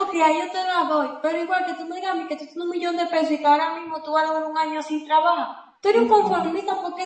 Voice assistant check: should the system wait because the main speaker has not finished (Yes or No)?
Yes